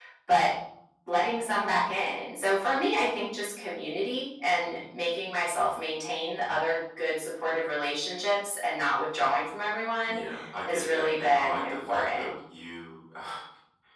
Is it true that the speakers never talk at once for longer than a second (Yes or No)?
No